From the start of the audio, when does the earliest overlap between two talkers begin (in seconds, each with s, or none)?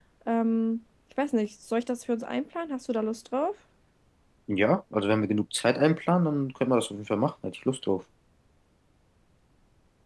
none